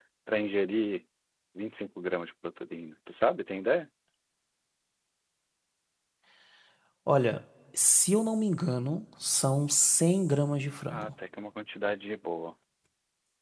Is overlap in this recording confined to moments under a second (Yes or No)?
Yes